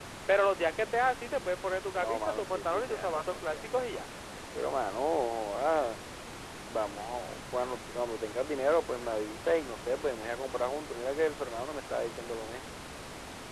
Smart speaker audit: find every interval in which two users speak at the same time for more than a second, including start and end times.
2.0-4.1

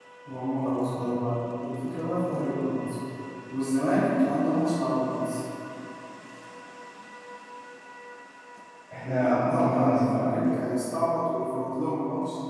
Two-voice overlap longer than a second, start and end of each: 9.0-10.8

